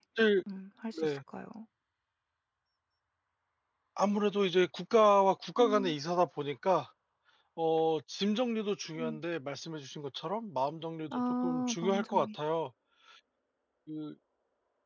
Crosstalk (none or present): present